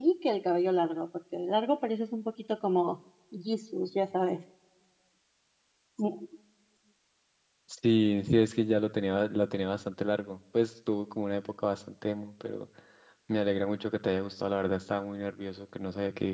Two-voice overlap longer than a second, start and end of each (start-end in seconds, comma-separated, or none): none